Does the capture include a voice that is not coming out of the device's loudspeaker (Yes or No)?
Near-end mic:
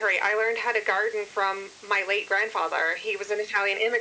No